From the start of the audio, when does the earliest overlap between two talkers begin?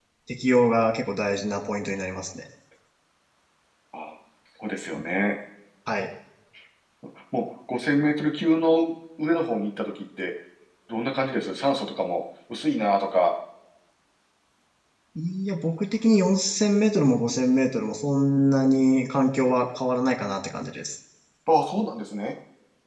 none

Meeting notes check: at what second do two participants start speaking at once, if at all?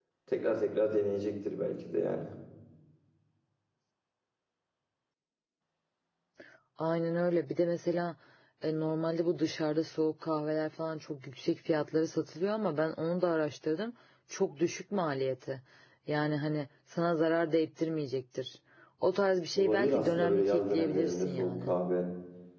19.6 s

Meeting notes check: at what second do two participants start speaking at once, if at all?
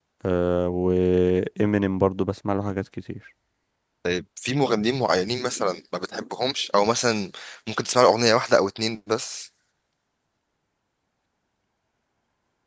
none

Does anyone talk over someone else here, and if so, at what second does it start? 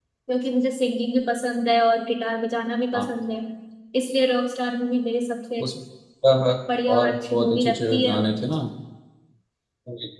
6.9 s

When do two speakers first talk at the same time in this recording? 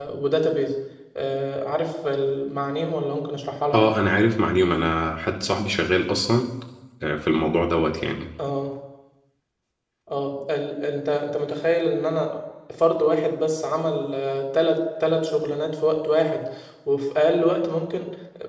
none

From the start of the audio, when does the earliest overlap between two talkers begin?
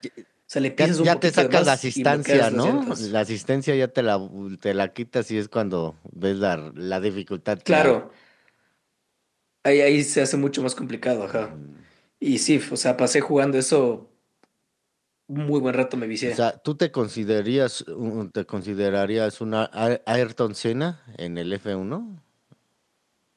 0.8 s

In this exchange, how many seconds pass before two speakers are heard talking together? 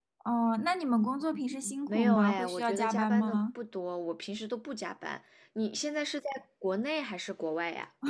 1.9 s

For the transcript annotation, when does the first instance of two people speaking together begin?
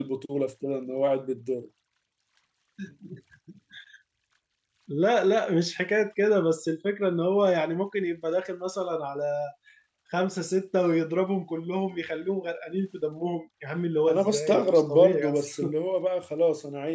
14.1 s

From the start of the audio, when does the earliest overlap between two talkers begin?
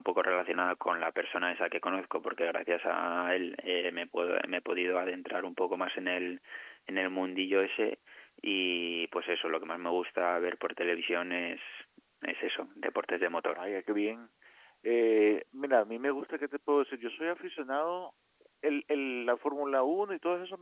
none

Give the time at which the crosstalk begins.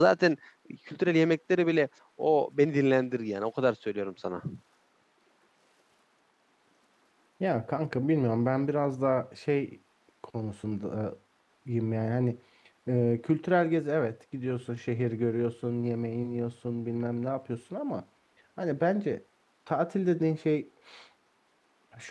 none

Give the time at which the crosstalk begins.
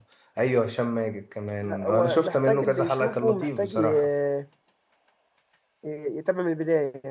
1.6 s

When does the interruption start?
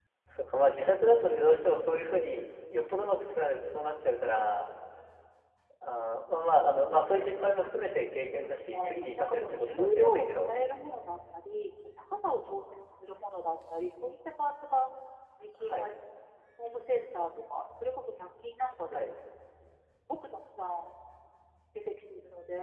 8.3 s

